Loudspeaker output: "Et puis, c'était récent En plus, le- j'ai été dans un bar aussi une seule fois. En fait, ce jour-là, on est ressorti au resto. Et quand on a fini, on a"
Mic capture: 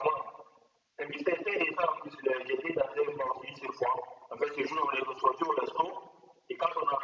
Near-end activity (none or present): none